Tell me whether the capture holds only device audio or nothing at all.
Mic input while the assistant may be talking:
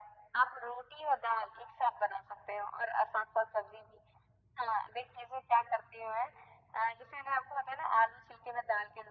Yes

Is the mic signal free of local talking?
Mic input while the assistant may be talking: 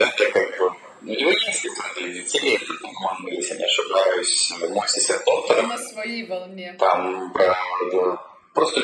No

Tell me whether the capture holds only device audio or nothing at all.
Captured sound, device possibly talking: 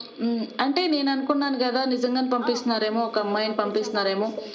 No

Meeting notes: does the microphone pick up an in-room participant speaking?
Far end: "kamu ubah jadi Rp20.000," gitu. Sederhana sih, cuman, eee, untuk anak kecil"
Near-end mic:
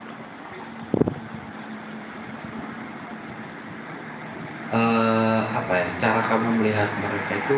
Yes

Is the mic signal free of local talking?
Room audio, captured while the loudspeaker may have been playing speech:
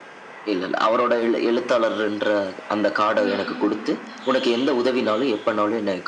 No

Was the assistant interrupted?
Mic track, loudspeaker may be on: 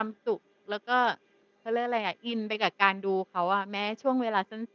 Yes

